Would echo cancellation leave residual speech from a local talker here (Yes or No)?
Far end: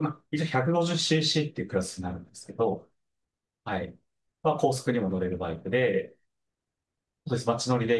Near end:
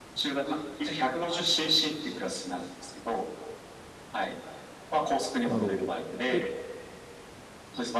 Yes